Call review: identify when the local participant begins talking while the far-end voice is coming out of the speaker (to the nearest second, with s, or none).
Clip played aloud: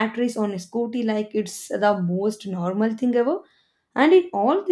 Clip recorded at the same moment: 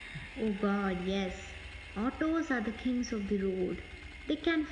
0 s